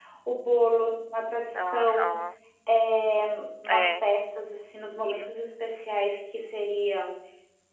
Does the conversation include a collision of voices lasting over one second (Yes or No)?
No